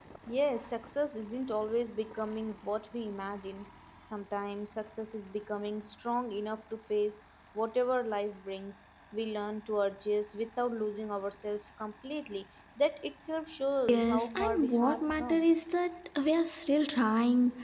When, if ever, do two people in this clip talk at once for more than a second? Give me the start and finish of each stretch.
13.9-15.5

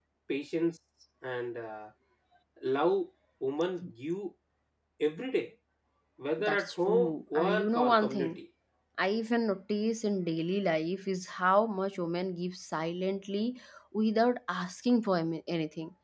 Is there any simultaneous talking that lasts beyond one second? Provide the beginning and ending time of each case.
6.4-8.4

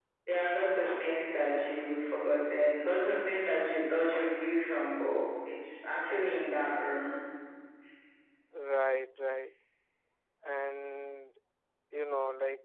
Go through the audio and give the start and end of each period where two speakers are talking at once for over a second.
none

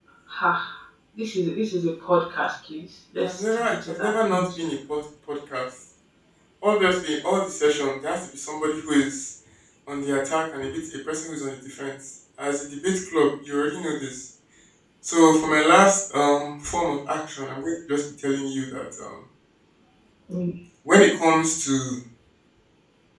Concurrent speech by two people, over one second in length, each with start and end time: 3.2-4.5

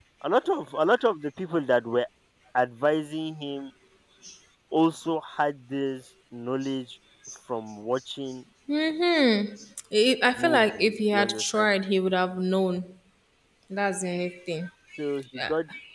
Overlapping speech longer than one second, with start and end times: 10.4-11.7

